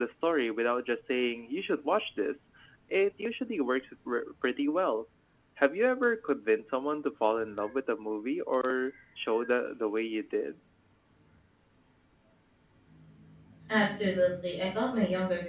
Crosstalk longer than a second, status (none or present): none